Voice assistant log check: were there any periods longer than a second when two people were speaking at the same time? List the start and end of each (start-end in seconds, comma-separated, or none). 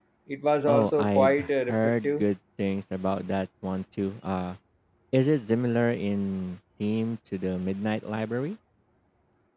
0.7-2.2